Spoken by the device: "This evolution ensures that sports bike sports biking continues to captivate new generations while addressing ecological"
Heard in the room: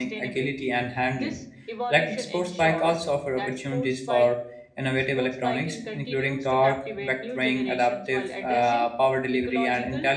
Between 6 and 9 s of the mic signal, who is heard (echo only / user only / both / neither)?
both